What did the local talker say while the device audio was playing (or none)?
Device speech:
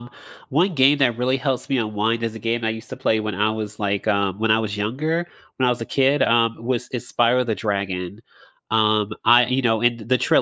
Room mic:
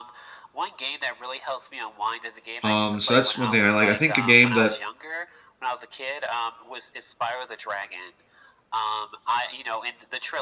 Um, so that's one thing I like. I think a game that